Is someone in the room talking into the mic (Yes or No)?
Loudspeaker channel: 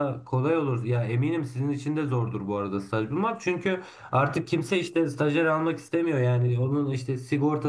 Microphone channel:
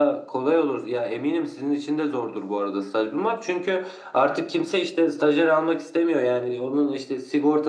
No